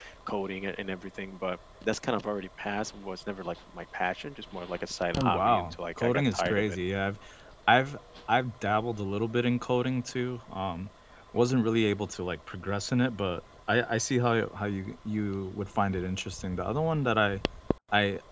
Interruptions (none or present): present